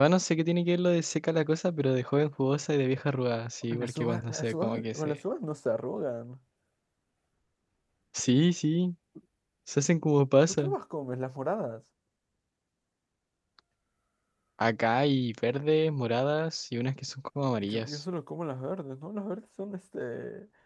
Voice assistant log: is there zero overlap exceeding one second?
No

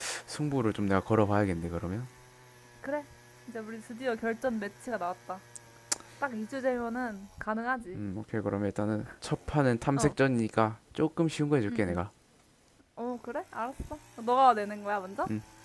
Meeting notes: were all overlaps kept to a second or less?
Yes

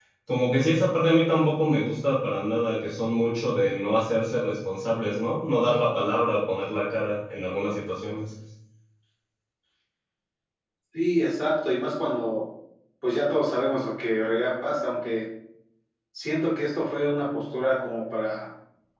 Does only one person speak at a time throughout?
Yes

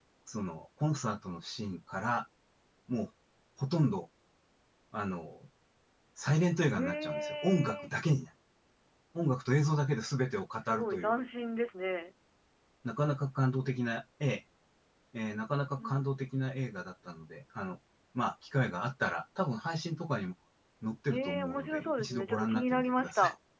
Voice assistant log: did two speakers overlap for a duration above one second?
Yes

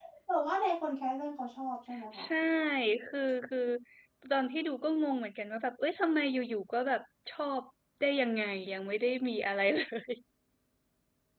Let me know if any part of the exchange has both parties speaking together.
No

